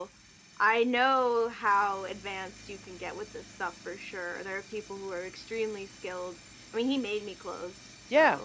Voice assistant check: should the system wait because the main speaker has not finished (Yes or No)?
No